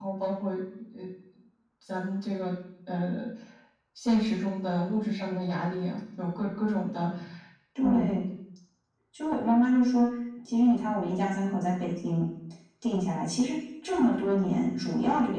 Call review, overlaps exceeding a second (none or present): none